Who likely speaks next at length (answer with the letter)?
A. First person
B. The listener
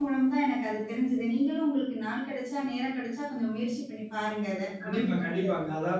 B